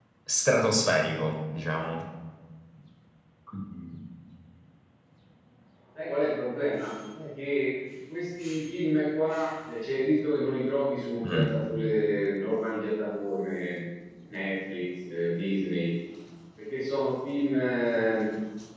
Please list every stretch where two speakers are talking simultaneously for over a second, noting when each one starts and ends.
none

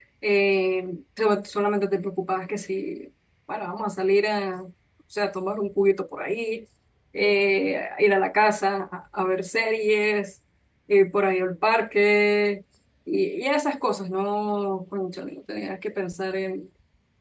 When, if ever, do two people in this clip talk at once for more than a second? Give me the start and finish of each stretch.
none

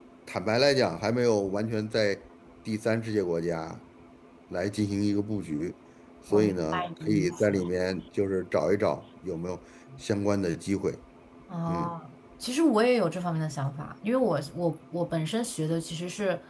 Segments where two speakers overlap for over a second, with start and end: 6.3-7.5

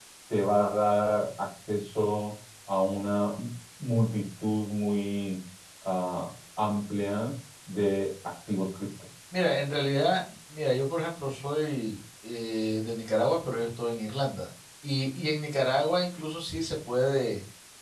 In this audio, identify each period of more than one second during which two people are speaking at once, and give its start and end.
none

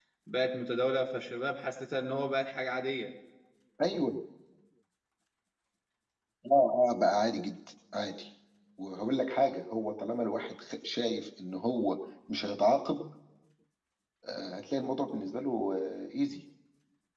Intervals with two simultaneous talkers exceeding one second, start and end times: none

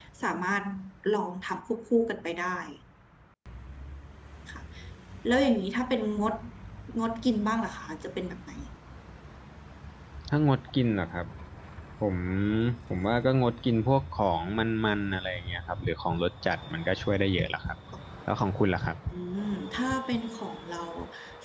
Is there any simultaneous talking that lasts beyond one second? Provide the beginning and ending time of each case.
none

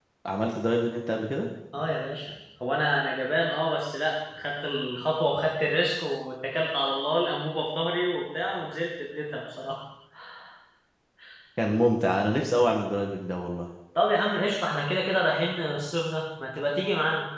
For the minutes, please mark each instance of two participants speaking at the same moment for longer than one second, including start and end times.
none

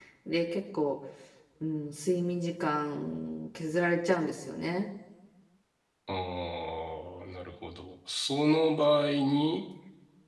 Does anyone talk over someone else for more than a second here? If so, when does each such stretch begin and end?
none

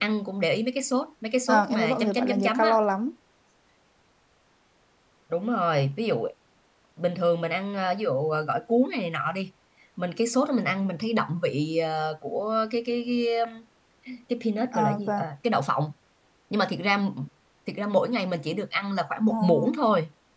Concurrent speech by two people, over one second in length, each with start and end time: 1.5-2.8

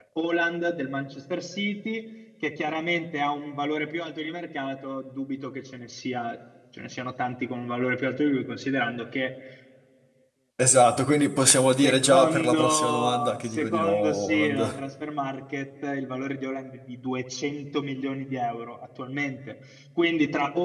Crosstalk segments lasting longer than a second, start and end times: 11.8-14.8

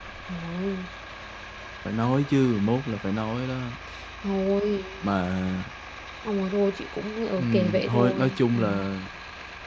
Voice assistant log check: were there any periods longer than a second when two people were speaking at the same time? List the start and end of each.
7.4-8.6

